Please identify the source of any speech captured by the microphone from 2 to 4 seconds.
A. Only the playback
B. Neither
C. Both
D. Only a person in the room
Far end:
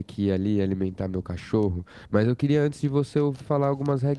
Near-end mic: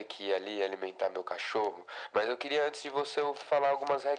A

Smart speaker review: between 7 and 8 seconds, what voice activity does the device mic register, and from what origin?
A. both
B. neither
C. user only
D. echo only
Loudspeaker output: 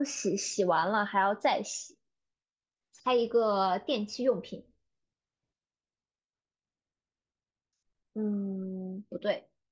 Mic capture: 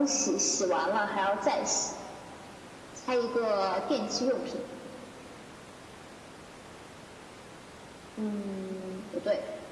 B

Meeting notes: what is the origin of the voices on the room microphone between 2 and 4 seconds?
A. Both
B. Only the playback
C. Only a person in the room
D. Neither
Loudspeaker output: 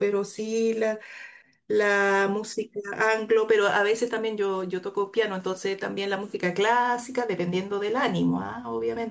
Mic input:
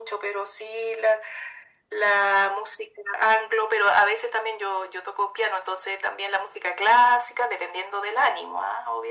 B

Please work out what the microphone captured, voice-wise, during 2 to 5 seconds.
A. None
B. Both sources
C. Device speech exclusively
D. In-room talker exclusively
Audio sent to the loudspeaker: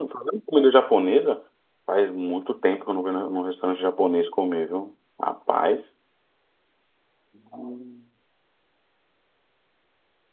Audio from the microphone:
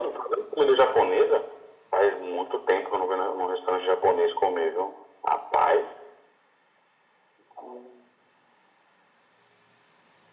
C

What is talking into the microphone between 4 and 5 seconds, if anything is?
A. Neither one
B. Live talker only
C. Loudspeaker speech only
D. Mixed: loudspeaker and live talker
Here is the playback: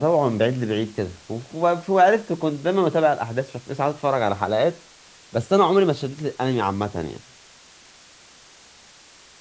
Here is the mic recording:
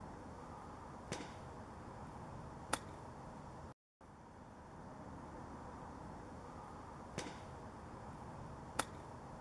A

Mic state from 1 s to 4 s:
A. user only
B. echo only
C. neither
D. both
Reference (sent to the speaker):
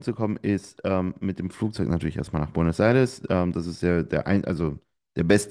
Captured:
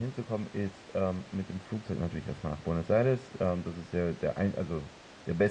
B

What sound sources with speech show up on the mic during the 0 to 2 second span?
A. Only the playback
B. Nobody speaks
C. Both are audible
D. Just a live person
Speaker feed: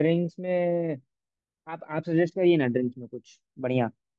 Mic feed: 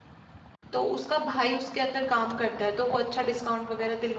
D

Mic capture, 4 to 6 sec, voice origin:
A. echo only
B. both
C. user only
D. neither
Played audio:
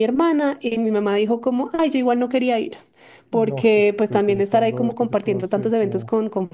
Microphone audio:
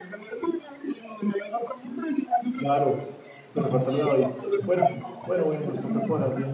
B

